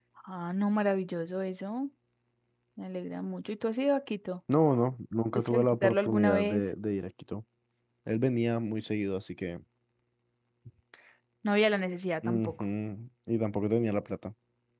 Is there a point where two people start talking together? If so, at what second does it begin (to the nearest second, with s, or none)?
5 s